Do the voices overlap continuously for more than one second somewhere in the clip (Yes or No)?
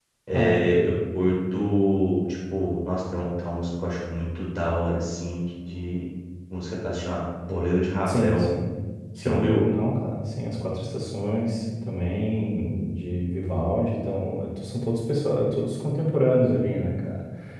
No